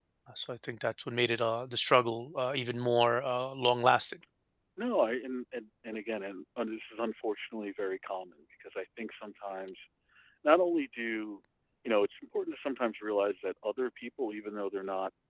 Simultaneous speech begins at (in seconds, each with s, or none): none